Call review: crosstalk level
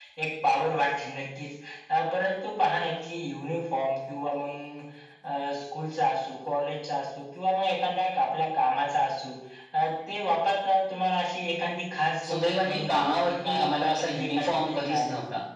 present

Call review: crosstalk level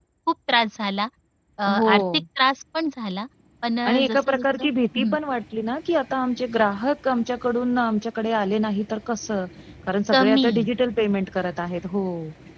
present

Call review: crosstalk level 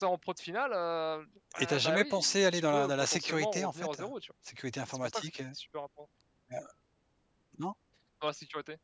present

